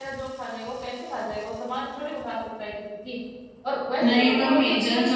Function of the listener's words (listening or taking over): taking over